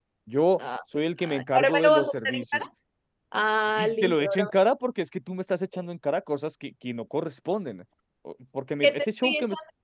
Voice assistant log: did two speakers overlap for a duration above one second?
Yes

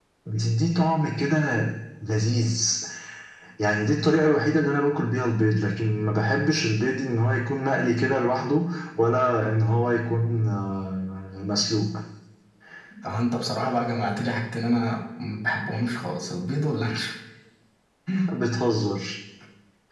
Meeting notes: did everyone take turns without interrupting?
Yes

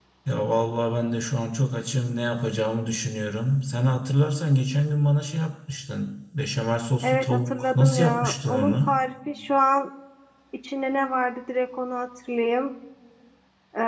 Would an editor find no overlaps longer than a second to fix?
No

